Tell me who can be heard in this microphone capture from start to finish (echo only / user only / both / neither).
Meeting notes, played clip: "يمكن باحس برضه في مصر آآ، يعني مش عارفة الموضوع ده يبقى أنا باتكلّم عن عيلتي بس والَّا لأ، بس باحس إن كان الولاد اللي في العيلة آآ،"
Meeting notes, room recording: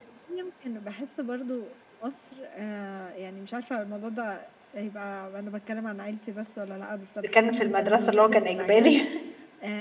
both